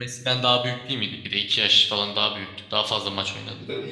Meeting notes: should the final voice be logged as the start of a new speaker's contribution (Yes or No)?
Yes